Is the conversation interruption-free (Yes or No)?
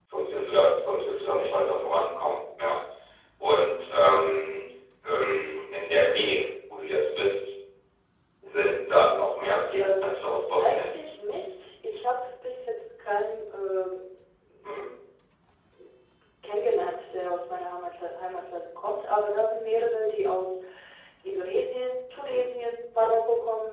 No